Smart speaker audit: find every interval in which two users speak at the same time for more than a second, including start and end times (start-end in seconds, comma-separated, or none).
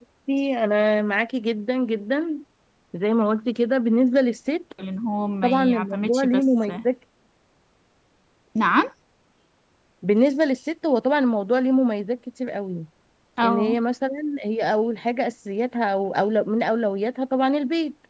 5.4-6.7